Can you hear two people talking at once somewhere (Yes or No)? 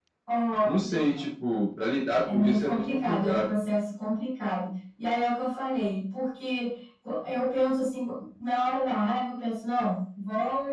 Yes